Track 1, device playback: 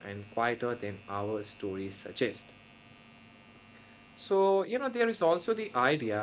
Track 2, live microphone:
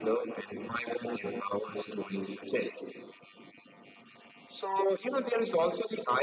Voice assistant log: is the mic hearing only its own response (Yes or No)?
Yes